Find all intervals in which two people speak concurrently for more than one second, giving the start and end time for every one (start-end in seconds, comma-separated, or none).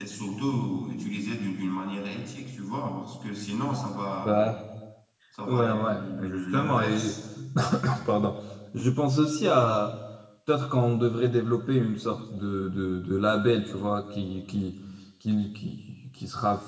5.5-7.2